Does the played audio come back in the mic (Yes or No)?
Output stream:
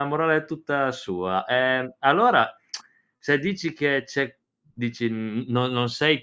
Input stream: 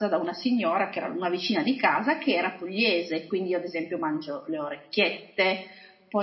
No